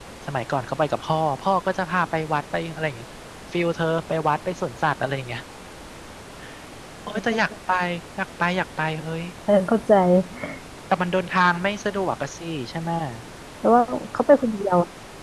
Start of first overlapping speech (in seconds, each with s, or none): none